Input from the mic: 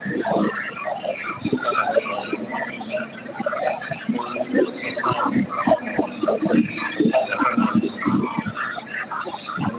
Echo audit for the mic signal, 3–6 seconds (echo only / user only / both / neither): echo only